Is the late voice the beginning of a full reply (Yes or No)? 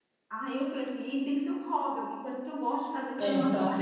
Yes